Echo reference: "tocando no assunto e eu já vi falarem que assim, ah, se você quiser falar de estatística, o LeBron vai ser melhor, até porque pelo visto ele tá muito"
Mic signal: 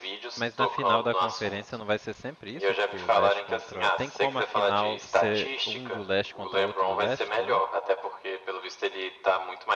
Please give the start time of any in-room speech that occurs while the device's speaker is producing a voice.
0.4 s

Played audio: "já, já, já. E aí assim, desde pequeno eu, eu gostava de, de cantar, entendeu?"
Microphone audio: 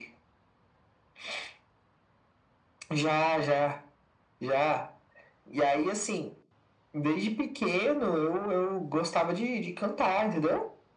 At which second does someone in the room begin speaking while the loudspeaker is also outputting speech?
none

